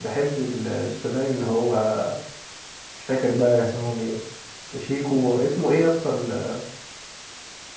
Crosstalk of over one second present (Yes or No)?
No